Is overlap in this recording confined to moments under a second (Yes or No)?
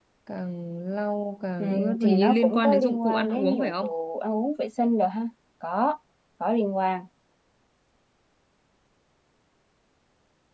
No